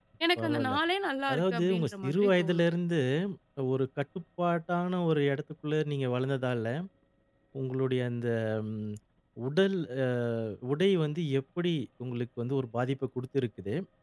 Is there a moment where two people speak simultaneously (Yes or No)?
Yes